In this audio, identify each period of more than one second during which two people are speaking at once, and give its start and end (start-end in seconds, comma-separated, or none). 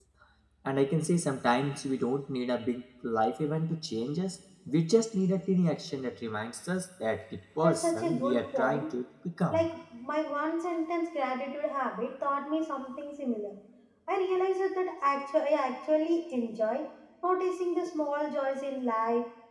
7.6-9.0